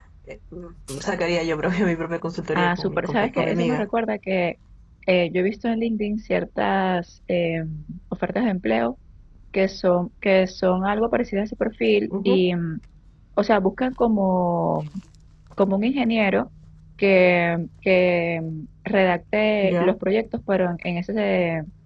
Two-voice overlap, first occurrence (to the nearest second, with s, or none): 3 s